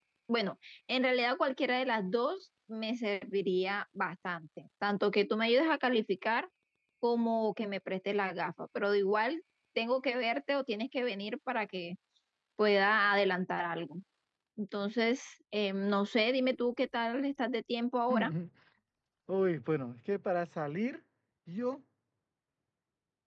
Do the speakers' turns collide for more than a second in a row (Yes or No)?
No